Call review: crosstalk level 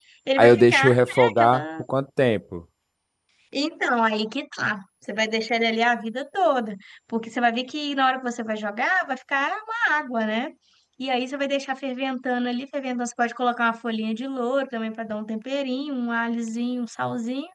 present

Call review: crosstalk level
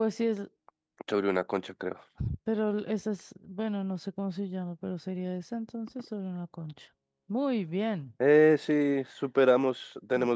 none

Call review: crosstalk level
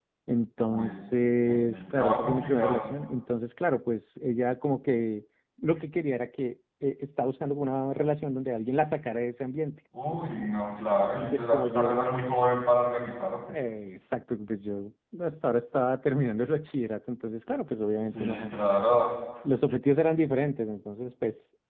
present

